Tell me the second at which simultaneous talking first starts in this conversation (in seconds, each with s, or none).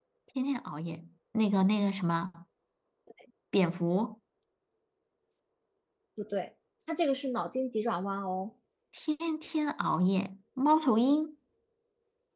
none